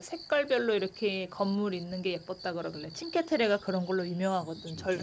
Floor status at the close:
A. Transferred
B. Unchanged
B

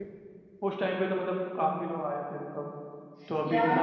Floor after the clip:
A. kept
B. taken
B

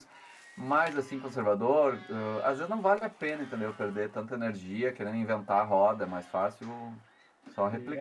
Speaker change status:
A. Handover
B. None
A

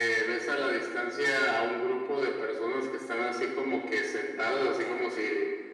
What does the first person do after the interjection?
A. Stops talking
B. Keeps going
B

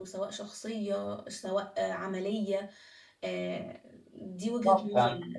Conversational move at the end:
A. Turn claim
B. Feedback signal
A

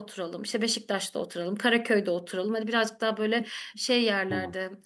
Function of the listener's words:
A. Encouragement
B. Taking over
A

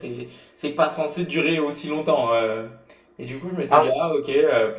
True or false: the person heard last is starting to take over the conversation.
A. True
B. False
B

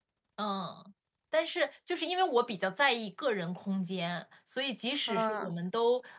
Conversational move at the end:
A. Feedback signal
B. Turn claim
A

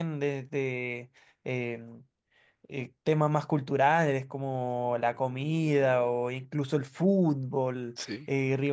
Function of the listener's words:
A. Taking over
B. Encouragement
B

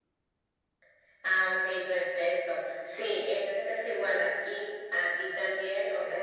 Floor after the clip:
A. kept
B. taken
A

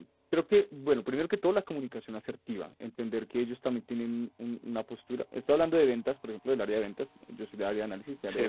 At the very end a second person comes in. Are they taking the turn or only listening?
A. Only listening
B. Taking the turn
A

